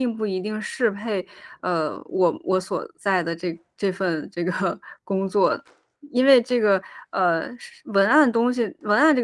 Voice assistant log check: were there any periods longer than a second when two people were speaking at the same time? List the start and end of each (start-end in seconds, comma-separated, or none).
none